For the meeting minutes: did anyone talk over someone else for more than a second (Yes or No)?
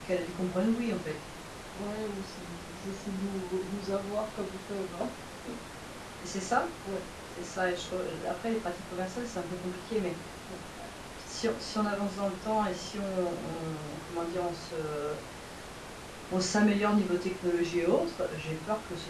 No